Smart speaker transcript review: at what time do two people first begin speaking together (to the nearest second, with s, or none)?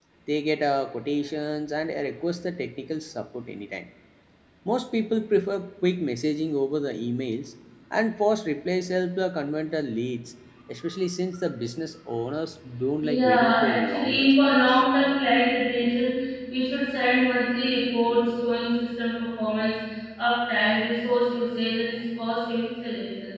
13 s